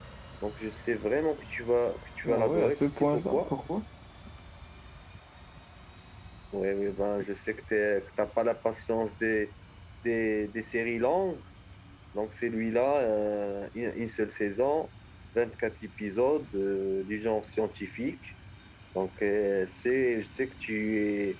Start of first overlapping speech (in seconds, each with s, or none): 2.2 s